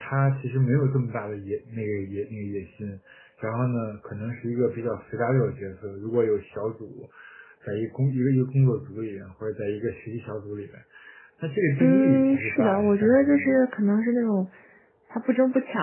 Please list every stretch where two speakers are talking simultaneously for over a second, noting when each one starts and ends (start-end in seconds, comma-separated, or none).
11.8-13.6